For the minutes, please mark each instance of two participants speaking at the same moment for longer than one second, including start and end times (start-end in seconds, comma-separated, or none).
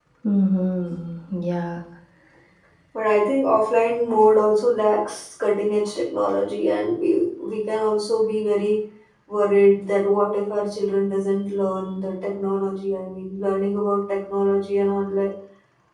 none